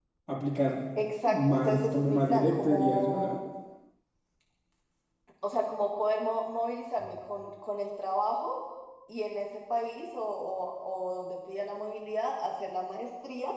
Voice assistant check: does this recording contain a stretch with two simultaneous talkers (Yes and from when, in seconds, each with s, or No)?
Yes, from 1.3 s